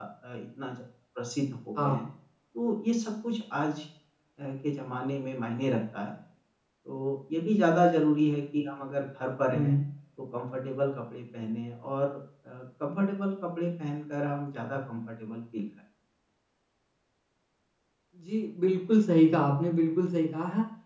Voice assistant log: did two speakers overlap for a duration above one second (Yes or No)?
No